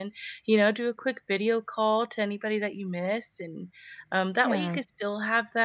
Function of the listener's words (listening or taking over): listening